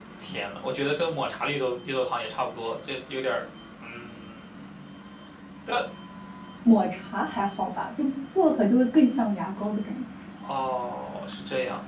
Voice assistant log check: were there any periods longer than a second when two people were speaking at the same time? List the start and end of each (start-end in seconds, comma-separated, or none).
none